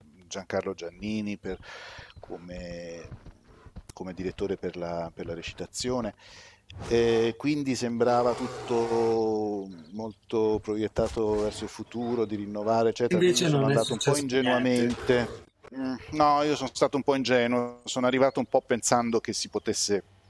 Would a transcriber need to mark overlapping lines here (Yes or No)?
Yes